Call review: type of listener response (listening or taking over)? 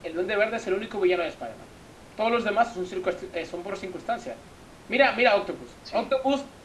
listening